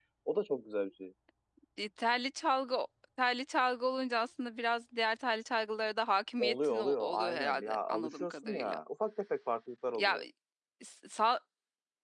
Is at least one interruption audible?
Yes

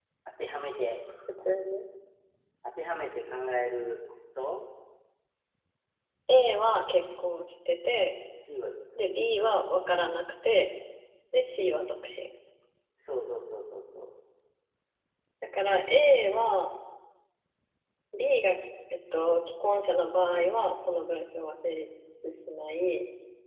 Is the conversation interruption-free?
Yes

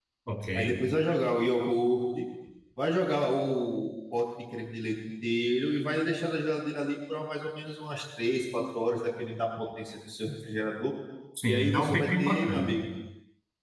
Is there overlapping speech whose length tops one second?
Yes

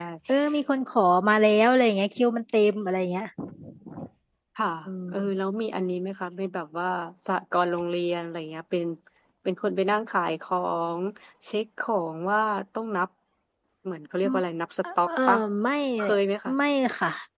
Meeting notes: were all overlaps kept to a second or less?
Yes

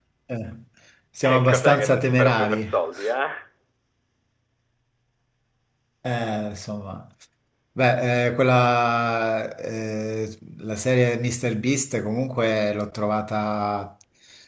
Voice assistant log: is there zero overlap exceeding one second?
No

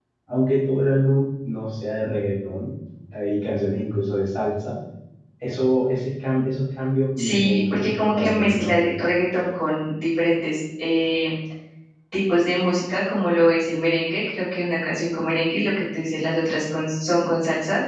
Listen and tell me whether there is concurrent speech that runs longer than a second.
Yes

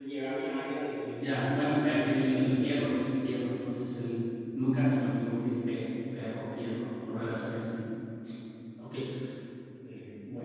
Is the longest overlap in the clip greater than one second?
Yes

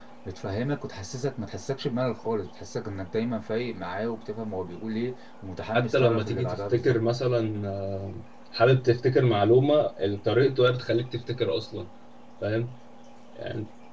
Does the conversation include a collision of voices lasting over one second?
Yes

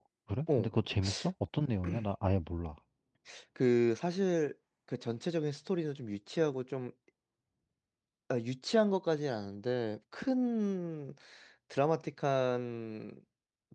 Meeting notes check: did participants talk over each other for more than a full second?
No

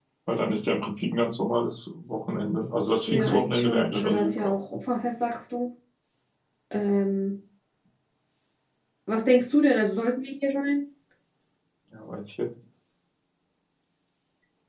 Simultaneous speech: Yes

